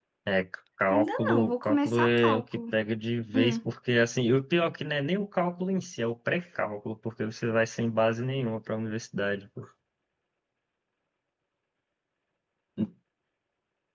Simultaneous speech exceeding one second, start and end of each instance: 0.9-2.6

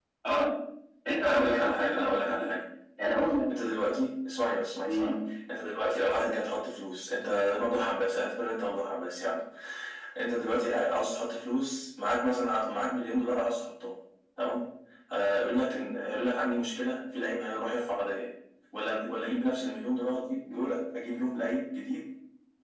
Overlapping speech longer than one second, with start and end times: 1.2-2.5

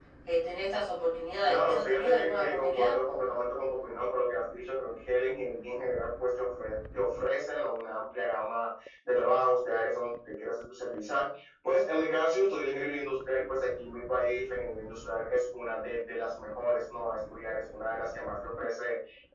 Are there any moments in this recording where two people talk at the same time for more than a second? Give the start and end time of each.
1.4-2.9

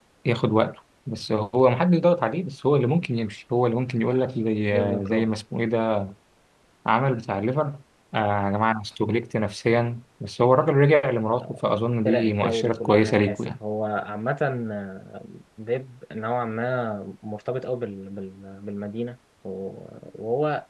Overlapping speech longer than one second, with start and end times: 12.1-13.6

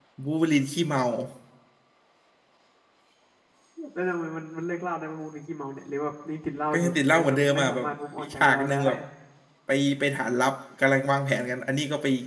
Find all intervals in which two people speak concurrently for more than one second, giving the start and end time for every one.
6.7-8.8

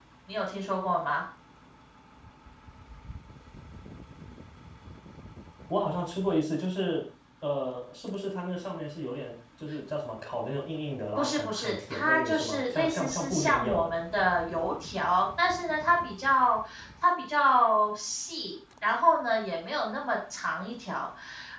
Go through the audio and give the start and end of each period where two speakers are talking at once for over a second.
11.2-13.9

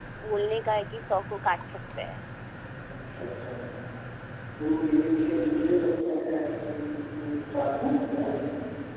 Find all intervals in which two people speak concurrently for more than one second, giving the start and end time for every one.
none

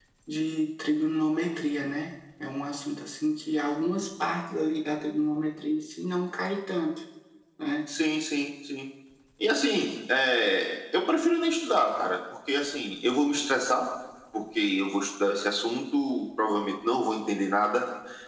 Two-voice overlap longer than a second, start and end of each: none

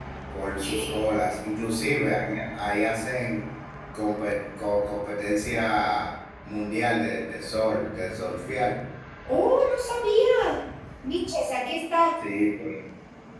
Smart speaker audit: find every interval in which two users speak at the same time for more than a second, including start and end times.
none

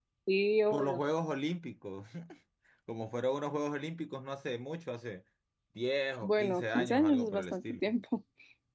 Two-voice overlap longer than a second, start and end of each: 6.2-7.8

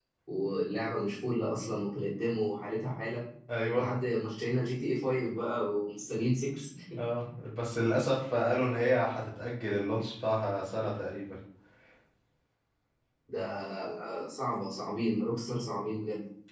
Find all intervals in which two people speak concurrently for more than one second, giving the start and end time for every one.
none

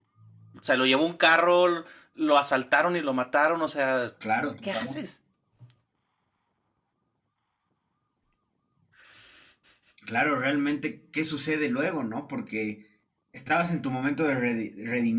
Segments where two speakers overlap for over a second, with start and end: none

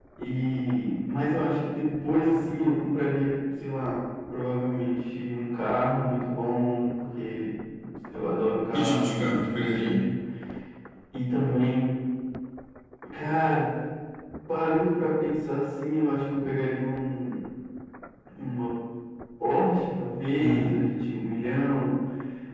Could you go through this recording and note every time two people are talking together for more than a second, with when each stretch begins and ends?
8.7-10.0

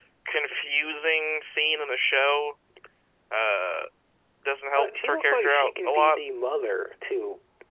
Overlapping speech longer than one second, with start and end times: 4.8-6.2

